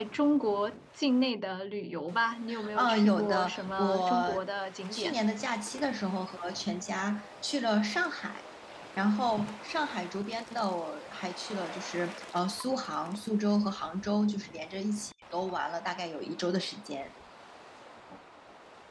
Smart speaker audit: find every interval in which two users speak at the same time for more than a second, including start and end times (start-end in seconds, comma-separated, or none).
2.8-4.4